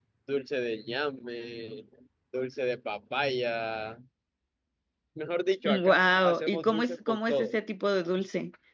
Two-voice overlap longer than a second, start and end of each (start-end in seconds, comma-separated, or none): 5.7-7.5